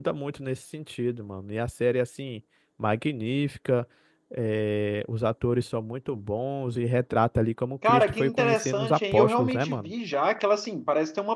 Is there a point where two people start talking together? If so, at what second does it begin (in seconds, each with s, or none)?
7.8 s